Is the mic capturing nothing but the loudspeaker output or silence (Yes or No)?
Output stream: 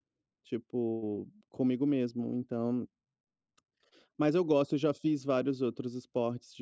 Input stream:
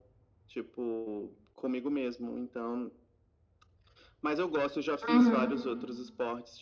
No